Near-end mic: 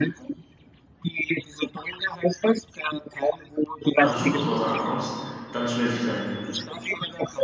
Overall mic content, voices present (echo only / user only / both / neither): both